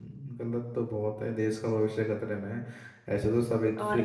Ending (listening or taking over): listening